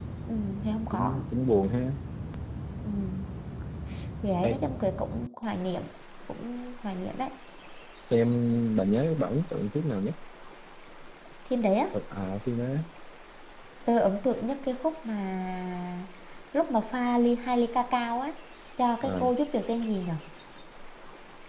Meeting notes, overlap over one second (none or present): none